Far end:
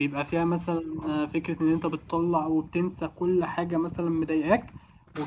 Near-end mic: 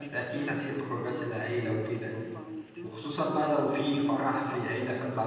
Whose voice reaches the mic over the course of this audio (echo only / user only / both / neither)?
both